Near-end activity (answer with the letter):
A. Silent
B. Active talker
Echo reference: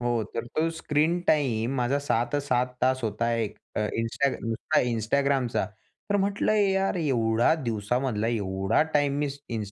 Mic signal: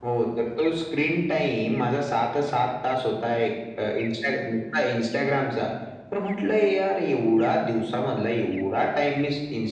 A